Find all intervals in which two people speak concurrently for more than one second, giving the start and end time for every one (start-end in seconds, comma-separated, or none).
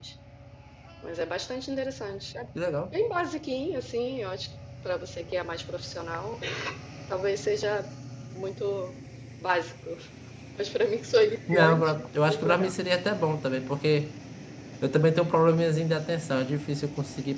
11.5-12.7